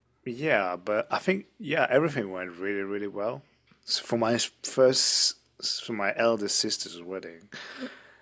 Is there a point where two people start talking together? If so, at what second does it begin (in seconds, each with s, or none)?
none